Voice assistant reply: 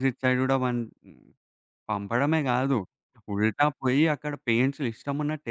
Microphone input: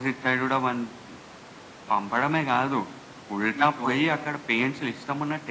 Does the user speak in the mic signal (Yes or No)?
Yes